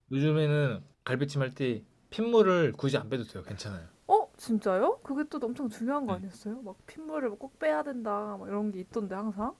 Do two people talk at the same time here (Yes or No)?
No